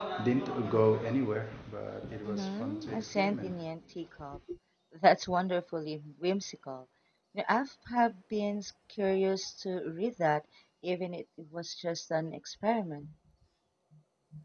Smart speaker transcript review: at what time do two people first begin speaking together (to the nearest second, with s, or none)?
2 s